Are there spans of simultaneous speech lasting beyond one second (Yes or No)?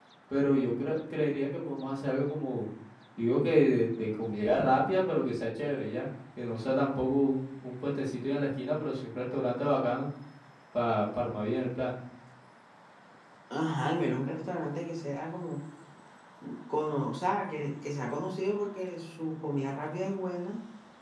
No